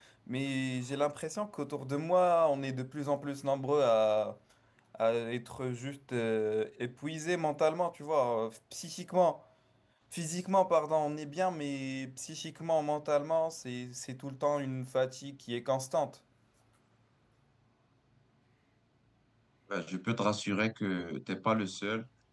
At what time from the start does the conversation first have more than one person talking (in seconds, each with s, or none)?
none